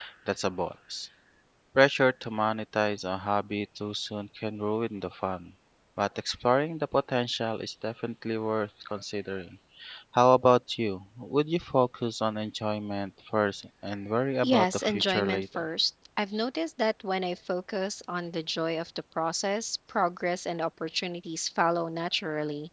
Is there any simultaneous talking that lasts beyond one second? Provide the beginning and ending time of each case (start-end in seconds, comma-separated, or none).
14.4-15.7